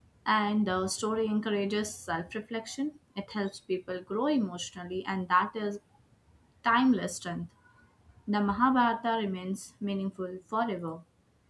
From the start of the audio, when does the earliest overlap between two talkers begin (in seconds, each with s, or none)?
none